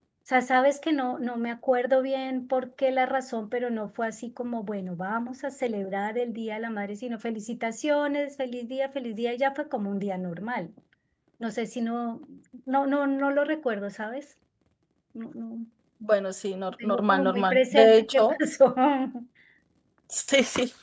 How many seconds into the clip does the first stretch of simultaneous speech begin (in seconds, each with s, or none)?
16.8 s